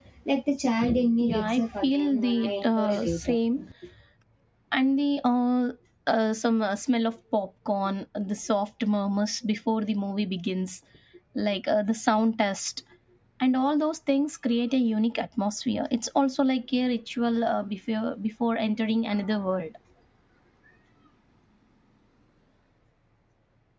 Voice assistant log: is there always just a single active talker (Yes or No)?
No